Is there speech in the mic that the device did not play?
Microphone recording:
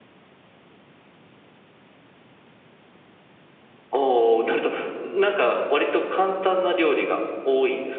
No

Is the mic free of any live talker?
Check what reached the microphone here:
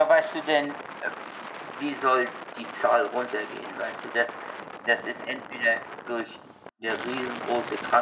Yes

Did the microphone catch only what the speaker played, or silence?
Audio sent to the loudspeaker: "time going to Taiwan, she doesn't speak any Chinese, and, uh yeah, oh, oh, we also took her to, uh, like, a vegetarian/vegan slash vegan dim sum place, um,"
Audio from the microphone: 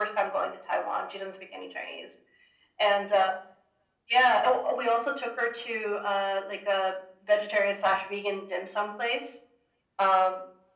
Yes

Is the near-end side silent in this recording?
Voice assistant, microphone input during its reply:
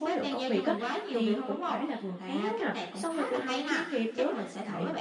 No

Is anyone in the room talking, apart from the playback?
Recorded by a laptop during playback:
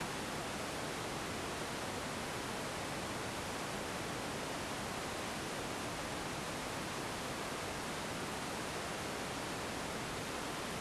No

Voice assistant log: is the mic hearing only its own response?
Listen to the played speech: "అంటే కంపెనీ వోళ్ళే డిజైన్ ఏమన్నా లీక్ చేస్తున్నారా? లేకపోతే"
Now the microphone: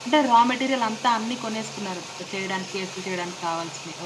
No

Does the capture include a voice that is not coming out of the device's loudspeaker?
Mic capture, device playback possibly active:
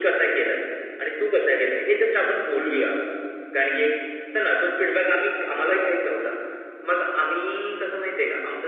No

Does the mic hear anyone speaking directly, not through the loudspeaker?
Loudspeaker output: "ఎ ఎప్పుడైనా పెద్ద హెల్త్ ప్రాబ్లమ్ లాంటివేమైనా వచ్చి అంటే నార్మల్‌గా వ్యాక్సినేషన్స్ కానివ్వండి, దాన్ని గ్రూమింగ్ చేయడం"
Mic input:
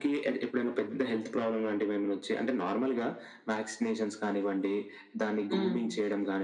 Yes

